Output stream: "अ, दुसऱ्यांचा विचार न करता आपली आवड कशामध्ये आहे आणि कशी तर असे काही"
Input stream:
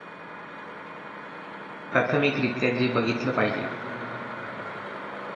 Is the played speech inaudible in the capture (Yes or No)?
Yes